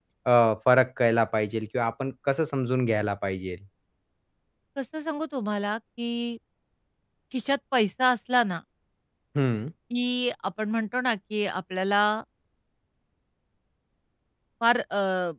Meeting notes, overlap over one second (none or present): none